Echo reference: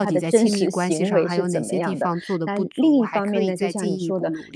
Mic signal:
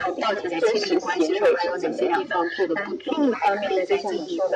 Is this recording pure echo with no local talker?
Yes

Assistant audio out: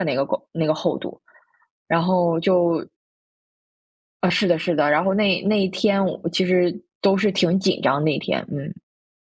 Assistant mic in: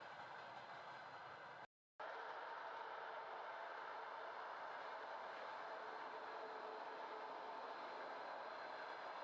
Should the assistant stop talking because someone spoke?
No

